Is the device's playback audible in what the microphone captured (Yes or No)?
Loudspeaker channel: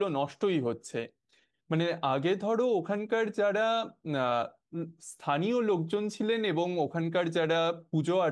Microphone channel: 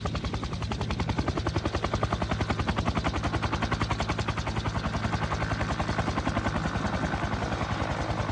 No